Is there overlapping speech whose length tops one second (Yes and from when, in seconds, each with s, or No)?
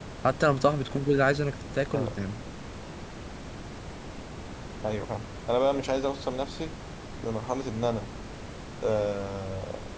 No